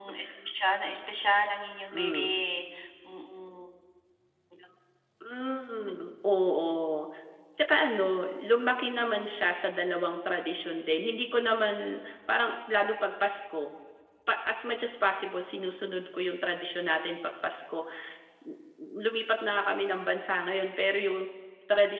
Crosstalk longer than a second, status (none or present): none